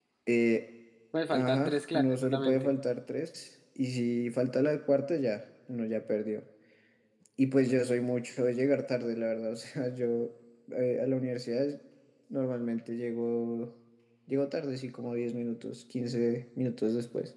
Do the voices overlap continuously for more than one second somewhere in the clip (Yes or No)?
Yes